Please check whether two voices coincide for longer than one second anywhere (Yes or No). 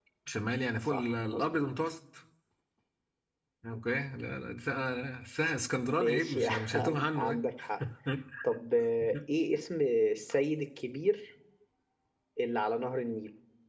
Yes